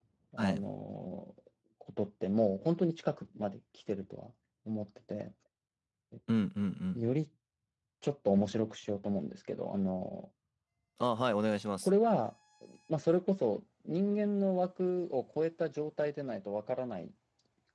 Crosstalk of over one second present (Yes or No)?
No